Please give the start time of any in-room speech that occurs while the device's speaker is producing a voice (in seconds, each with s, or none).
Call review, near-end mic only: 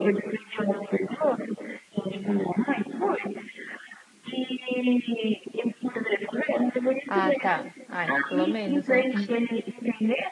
7.1 s